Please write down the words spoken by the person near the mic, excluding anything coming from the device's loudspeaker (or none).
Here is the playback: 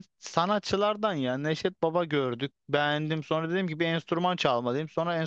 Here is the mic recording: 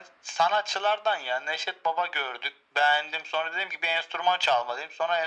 none